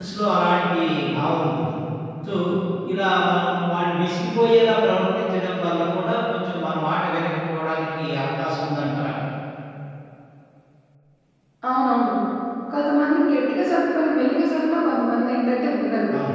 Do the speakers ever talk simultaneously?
No

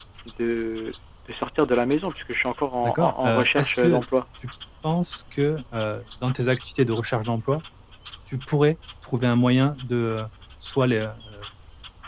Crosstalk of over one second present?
Yes, from 2.8 s

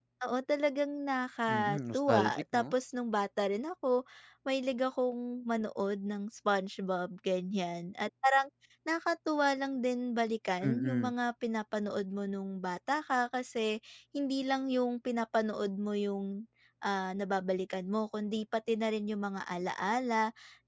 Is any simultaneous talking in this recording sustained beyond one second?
Yes, from 1.5 s

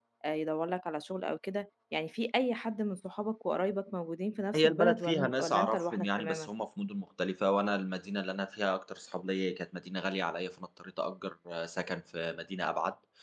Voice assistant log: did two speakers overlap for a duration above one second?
Yes, from 4.5 s

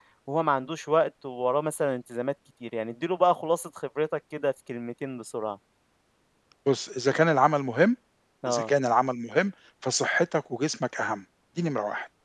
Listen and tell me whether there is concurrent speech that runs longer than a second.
No

